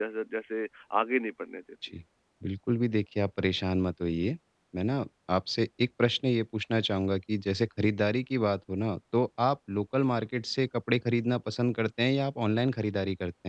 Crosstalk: none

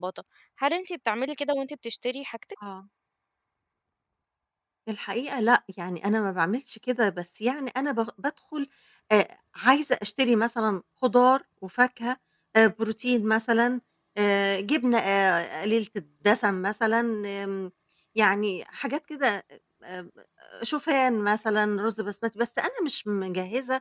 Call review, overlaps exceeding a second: none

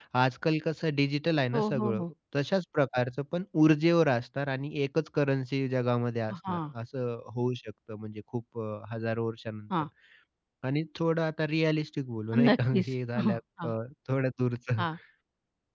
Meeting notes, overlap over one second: present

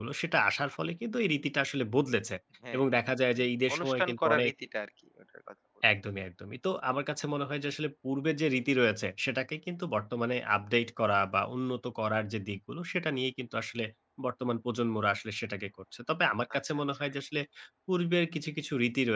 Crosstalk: present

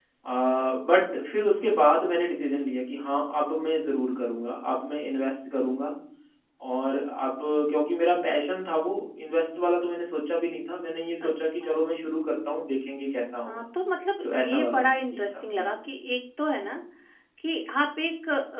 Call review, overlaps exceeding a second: present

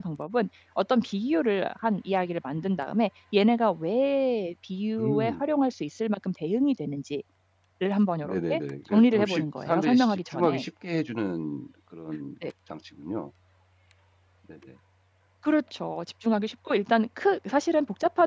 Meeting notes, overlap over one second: present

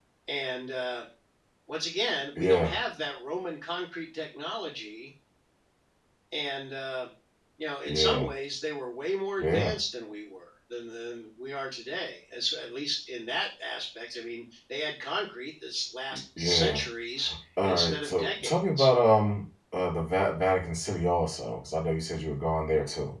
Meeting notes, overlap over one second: present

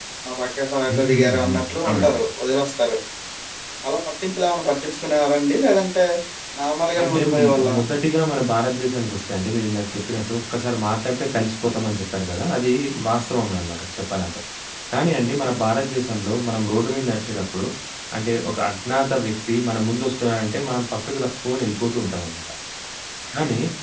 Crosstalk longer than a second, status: present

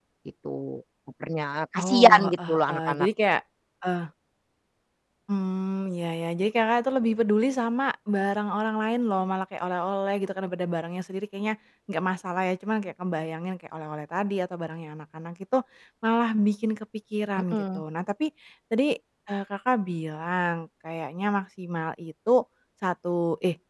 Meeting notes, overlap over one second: present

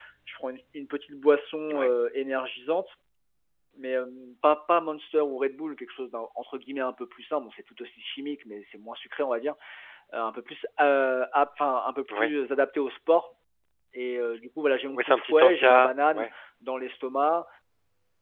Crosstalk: present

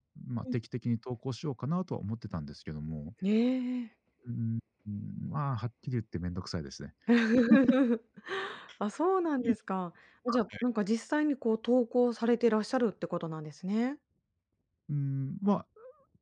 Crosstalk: none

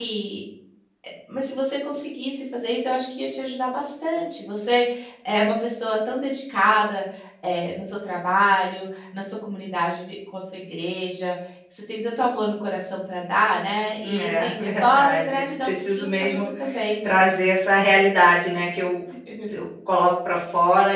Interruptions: present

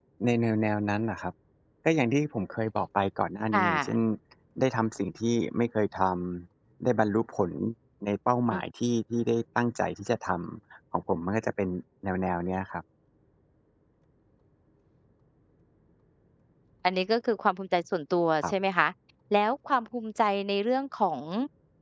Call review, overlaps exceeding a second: none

